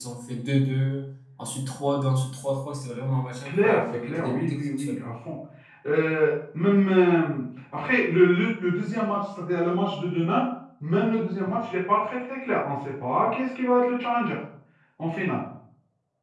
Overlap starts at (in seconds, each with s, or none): 3.5 s